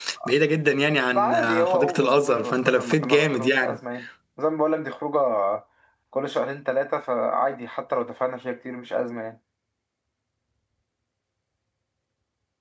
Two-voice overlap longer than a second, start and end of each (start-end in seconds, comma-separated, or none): 1.1-3.8